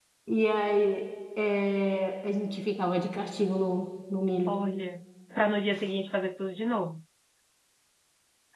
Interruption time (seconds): none

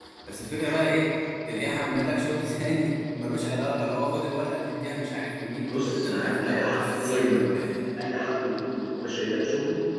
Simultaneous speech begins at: 5.7 s

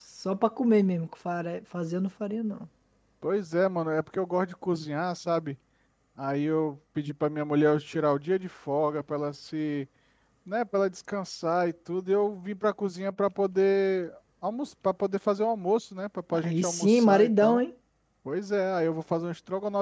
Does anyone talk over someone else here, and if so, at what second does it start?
16.3 s

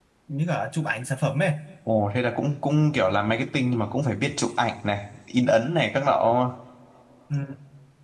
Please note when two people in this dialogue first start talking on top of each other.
none

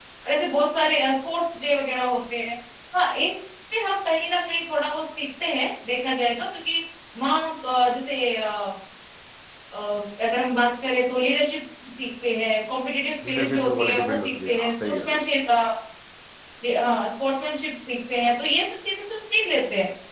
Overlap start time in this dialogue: 13.2 s

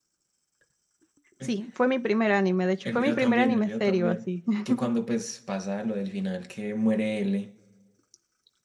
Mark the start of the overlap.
2.8 s

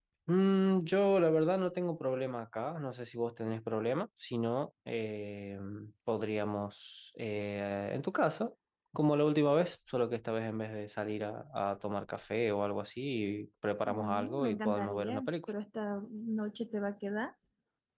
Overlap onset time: 13.8 s

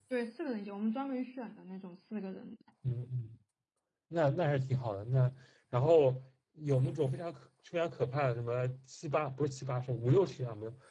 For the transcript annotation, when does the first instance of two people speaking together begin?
none

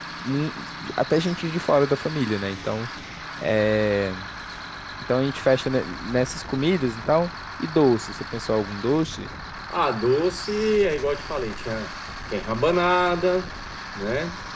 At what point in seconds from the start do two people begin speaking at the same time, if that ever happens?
none

